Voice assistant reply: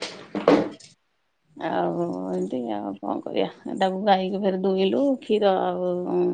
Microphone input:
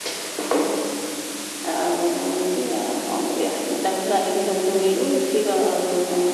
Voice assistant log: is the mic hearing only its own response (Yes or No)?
Yes